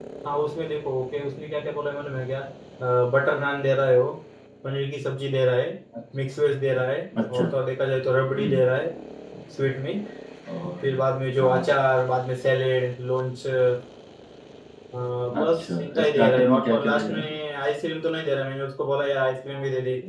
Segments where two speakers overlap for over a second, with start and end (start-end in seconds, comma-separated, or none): 15.4-17.3